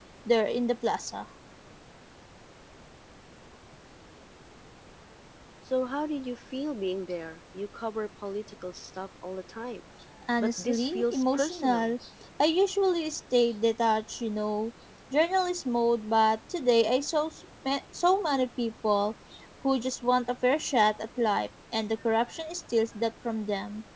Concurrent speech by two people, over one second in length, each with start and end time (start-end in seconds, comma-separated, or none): 10.4-11.9